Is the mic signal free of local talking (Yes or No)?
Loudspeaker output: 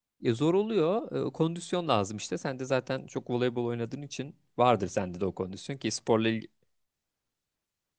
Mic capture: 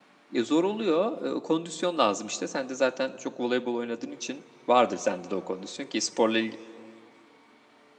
Yes